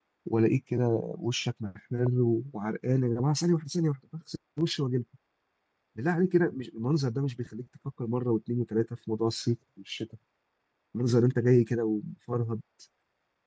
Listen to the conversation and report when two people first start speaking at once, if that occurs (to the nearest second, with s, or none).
none